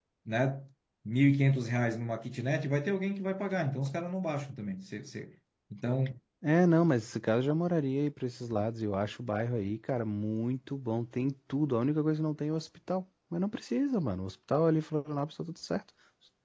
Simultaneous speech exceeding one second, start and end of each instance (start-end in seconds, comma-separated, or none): none